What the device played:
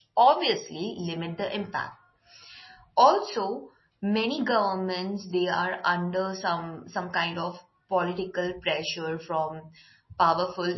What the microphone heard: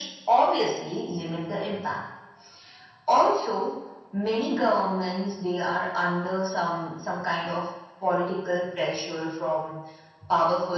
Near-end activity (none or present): none